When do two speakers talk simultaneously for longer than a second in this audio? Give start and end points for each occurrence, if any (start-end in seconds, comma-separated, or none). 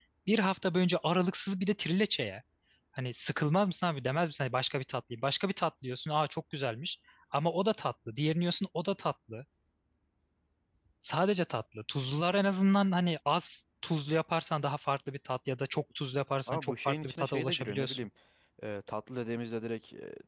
16.5-18.1